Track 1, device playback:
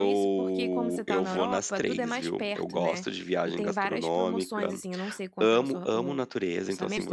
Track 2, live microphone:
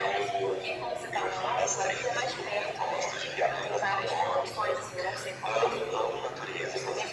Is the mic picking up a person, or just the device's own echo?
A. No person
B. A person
A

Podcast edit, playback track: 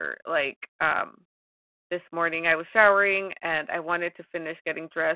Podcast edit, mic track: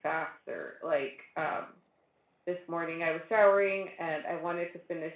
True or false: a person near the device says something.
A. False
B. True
A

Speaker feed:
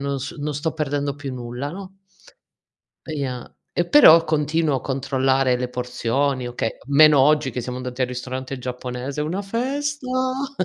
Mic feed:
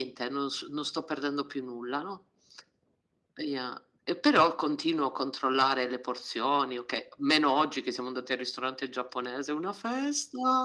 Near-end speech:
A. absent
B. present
A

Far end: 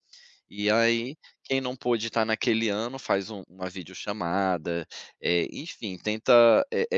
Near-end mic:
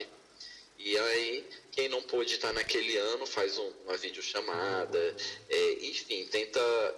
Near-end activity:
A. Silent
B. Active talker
B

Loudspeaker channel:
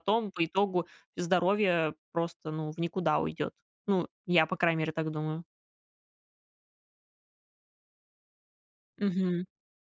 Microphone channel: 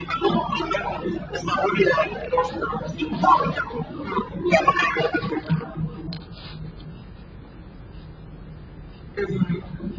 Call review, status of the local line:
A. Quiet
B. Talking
A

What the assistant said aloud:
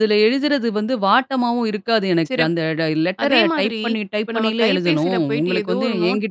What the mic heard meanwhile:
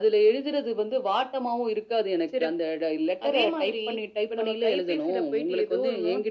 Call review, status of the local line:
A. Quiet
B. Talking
A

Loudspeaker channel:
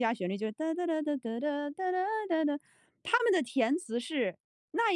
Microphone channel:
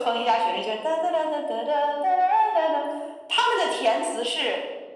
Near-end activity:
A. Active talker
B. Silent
B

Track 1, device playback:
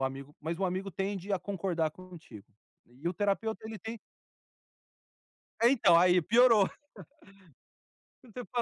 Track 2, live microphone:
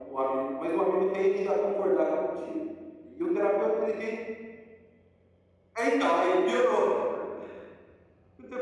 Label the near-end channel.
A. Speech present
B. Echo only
B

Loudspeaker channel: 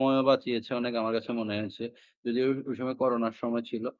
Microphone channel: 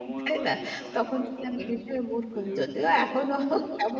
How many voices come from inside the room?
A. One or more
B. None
A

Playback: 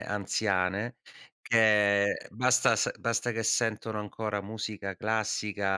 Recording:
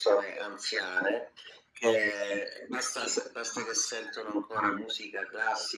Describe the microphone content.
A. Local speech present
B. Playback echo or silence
B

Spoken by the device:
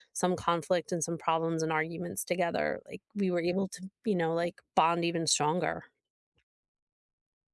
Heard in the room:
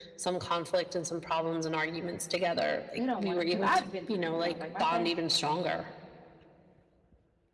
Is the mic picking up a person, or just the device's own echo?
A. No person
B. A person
B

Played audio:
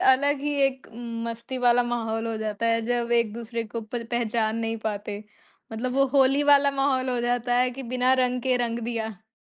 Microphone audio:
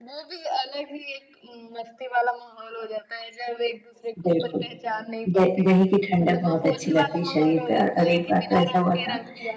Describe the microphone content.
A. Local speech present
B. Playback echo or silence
A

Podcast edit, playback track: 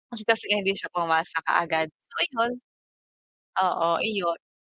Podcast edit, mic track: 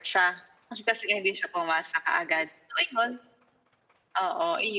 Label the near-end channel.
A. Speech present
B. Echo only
B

